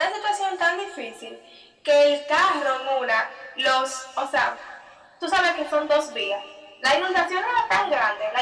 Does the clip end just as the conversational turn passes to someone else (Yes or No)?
No